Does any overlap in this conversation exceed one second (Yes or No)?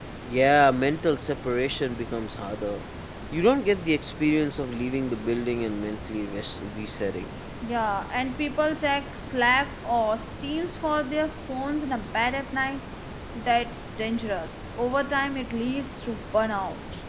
No